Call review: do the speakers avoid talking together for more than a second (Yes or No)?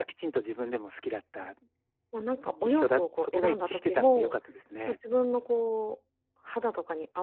No